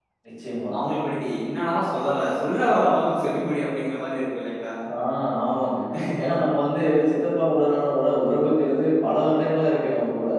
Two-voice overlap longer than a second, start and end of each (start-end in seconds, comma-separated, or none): none